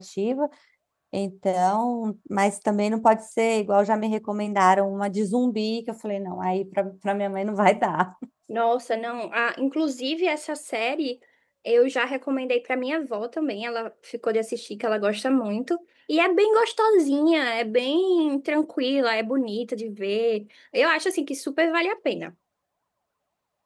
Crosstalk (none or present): none